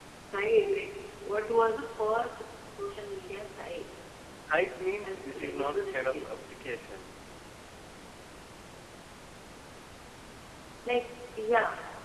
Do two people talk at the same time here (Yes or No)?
Yes